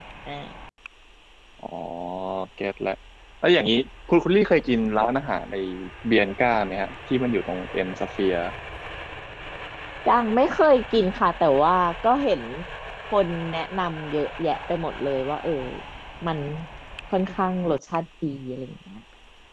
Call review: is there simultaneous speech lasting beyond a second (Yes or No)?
No